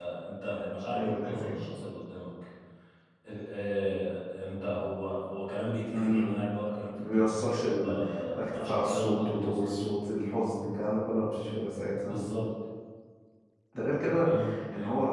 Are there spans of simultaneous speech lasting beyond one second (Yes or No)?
Yes